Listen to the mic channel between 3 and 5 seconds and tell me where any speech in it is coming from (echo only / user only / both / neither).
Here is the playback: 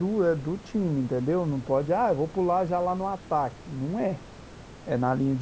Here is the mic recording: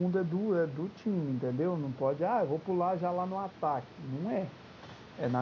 echo only